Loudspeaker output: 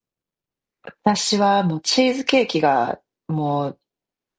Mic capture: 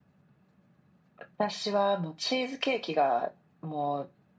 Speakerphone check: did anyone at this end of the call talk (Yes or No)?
No